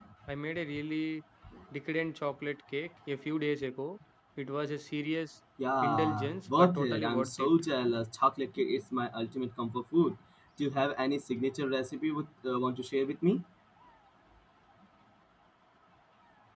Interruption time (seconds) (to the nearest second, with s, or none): 6 s